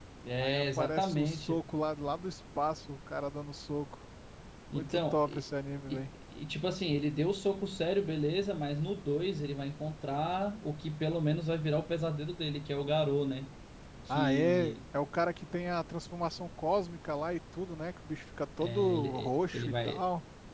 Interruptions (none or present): present